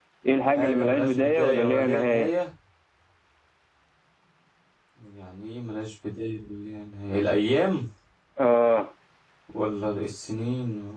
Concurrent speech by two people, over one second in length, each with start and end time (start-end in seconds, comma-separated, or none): 0.5-2.3